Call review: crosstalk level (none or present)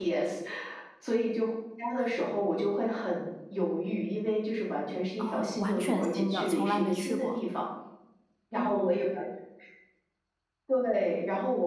present